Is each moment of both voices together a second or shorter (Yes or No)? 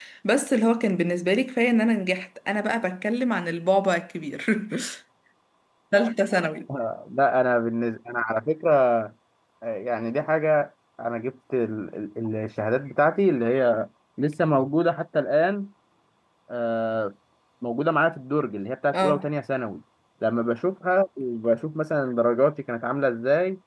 Yes